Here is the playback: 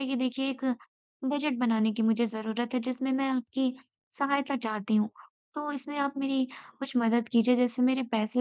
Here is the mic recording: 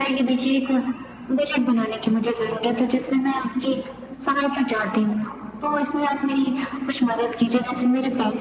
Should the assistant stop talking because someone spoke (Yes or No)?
No